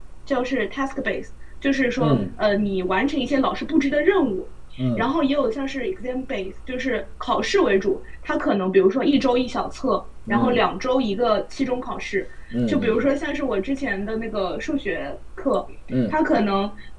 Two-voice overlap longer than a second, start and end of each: none

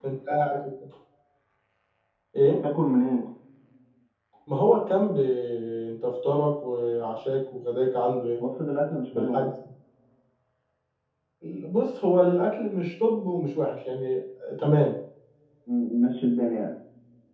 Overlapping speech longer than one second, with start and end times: none

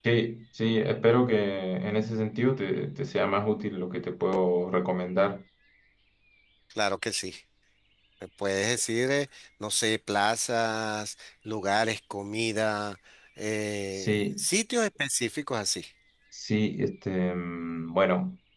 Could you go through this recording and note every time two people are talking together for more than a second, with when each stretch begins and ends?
none

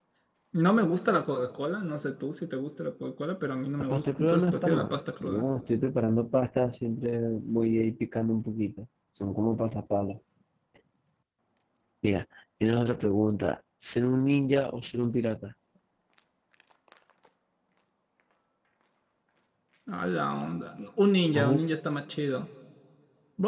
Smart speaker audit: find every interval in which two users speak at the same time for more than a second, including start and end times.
3.8-5.4

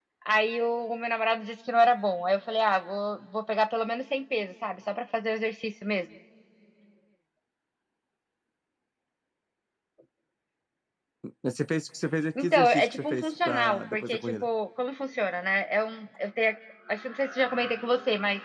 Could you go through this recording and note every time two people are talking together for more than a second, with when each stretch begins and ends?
12.4-14.4

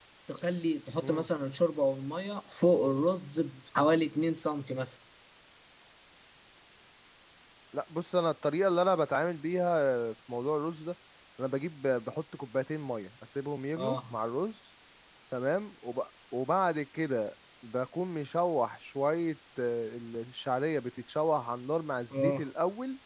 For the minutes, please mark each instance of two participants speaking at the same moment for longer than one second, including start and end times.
none

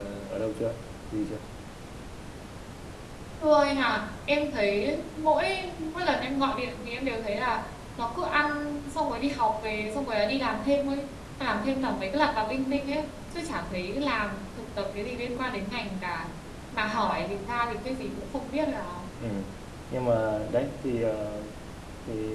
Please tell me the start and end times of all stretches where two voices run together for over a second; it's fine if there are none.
none

